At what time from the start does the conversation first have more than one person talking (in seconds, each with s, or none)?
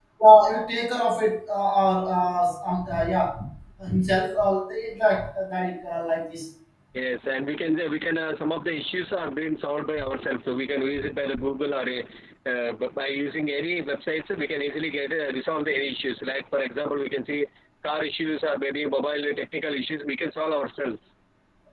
none